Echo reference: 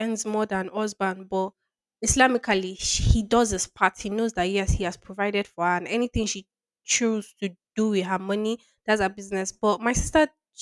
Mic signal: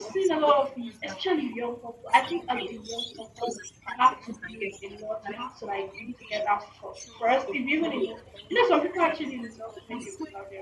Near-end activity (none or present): present